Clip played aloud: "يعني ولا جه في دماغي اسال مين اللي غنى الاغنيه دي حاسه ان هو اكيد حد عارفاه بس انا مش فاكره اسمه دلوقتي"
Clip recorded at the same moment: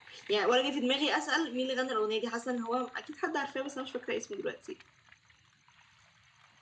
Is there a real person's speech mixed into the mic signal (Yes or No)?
No